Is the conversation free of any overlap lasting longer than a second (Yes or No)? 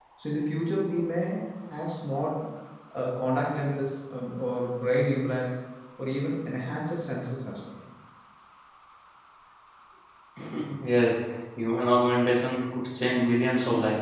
Yes